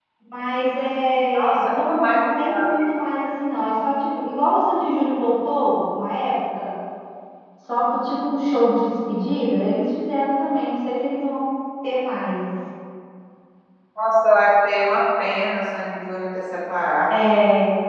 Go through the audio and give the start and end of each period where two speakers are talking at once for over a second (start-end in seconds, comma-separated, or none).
1.3-2.9